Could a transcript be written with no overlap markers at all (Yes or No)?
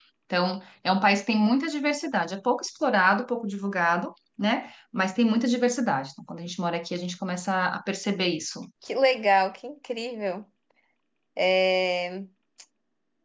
Yes